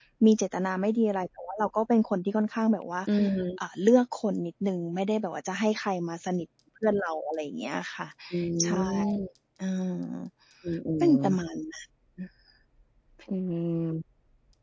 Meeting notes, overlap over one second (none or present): none